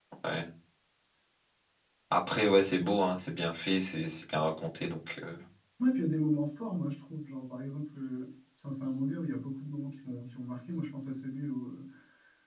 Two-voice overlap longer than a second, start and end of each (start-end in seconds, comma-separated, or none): none